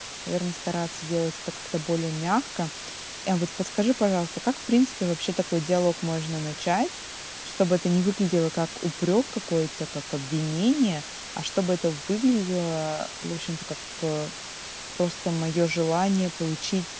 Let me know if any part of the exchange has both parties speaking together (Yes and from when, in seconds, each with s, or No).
No